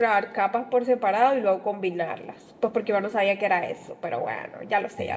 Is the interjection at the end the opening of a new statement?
Yes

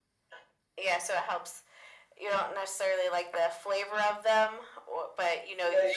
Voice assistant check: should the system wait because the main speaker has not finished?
No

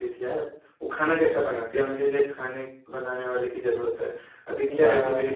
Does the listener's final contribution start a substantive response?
No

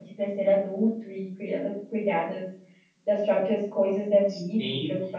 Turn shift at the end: Yes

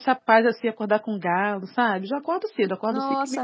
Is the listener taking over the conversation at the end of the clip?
No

